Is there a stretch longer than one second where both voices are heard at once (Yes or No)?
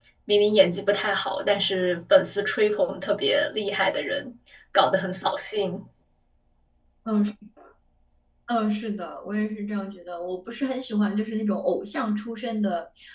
No